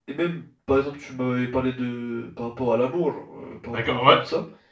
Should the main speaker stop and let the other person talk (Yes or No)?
Yes